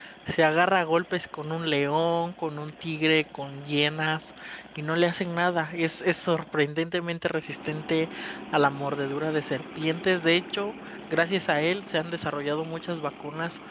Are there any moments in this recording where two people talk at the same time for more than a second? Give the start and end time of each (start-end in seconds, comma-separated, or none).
none